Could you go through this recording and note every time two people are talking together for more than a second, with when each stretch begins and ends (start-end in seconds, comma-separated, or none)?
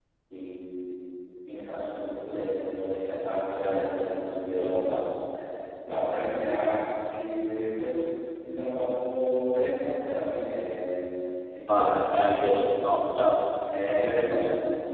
11.6-13.0